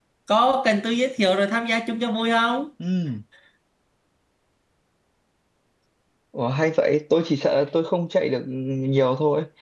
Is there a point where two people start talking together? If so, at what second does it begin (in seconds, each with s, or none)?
none